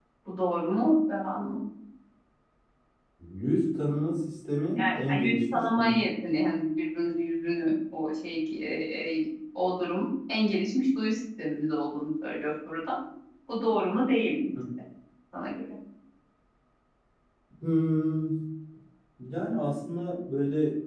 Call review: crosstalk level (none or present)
present